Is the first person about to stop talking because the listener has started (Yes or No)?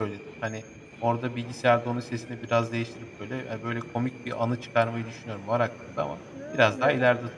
Yes